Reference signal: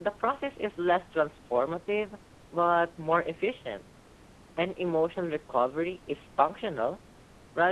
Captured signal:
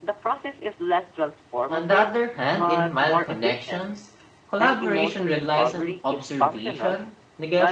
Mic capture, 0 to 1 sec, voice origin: echo only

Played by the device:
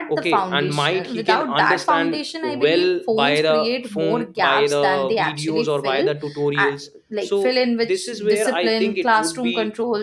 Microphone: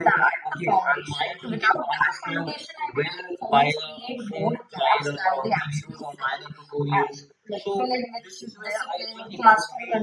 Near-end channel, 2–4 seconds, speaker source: echo only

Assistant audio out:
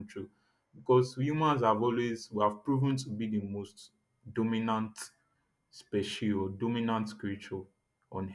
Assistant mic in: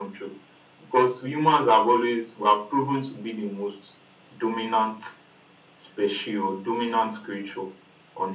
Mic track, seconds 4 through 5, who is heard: echo only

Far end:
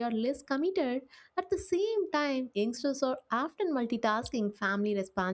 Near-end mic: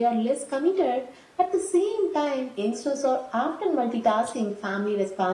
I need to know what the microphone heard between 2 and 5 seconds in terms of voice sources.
echo only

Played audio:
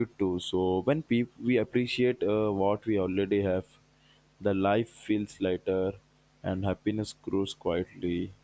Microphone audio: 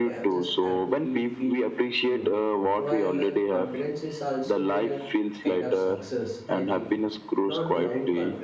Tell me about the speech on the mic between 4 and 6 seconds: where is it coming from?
both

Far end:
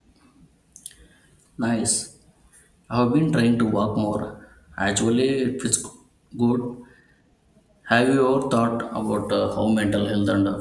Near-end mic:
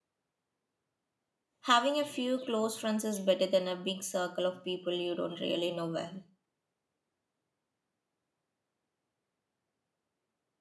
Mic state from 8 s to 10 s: neither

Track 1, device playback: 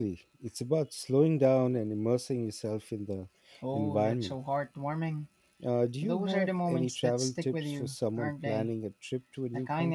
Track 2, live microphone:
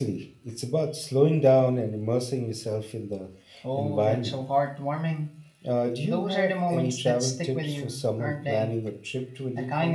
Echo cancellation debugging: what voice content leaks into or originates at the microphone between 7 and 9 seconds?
echo only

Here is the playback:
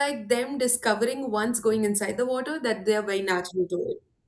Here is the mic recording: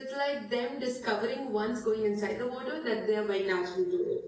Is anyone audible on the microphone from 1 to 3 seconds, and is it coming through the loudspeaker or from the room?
echo only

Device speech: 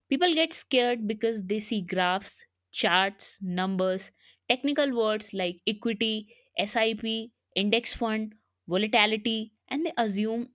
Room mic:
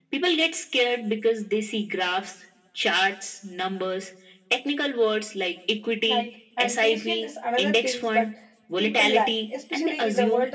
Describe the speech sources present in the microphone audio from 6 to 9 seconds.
both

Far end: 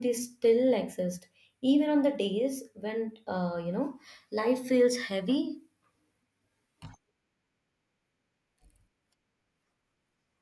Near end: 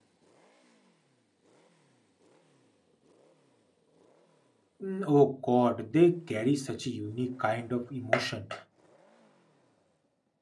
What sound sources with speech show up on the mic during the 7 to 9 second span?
user only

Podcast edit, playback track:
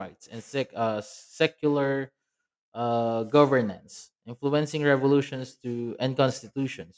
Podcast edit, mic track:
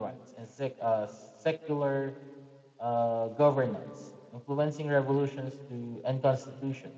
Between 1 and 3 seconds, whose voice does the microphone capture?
echo only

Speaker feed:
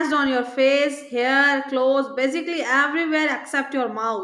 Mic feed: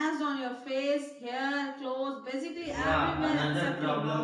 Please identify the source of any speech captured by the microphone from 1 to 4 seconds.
both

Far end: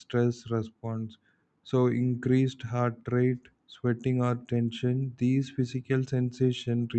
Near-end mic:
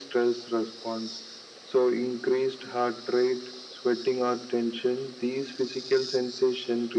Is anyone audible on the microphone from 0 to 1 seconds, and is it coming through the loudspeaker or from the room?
echo only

